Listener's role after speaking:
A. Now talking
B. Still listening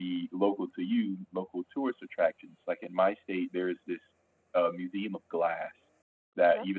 B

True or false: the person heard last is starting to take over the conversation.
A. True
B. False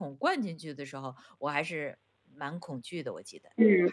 A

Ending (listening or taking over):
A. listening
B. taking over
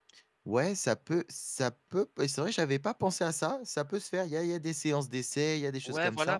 B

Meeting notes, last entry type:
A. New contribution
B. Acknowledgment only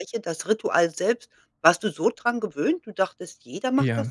A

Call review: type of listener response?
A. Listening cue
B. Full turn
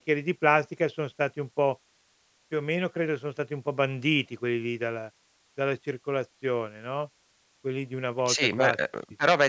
B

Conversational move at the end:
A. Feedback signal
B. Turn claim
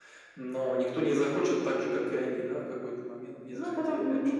B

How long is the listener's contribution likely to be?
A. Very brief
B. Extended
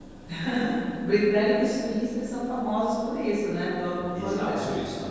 B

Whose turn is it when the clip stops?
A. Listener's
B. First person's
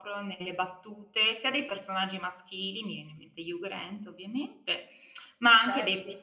B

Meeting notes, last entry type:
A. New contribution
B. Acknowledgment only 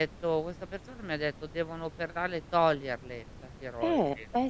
A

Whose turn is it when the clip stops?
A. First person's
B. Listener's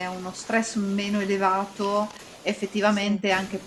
A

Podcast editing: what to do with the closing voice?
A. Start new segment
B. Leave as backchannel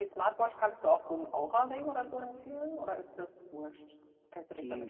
A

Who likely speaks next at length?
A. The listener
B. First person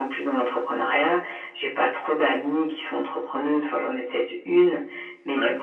B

